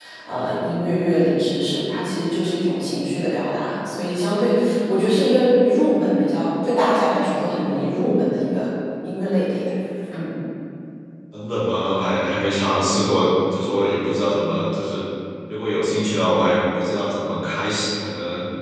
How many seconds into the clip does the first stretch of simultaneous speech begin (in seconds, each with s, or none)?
none